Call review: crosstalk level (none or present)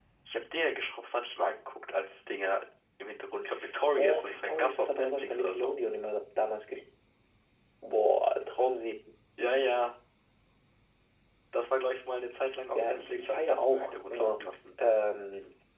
present